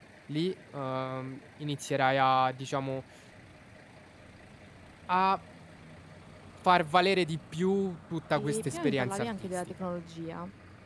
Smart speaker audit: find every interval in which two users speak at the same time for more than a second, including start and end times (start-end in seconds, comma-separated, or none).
8.4-9.7